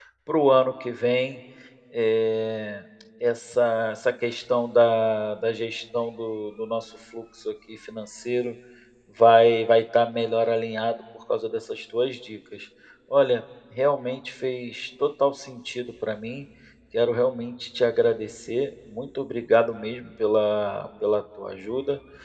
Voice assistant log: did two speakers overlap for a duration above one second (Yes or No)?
No